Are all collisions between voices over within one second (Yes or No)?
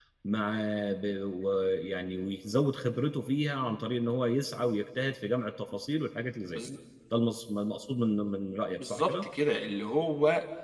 Yes